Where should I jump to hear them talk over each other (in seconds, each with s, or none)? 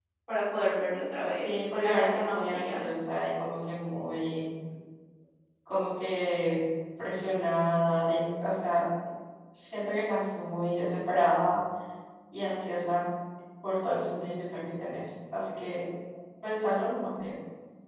1.3 s